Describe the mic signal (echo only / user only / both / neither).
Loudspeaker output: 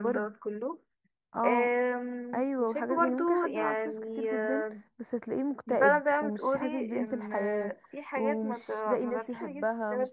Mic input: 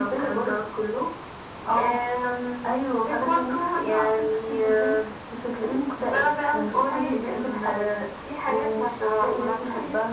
echo only